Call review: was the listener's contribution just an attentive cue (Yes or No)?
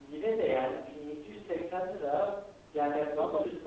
Yes